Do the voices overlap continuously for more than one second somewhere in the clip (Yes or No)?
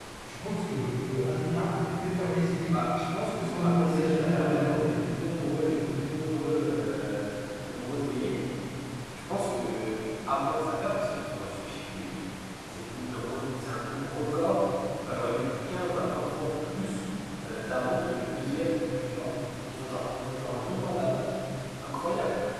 Yes